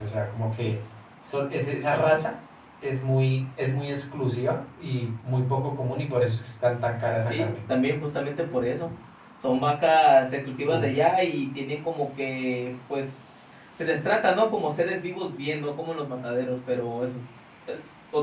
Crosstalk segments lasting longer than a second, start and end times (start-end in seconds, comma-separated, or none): none